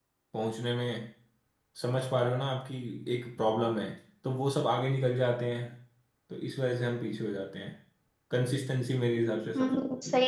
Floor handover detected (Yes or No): Yes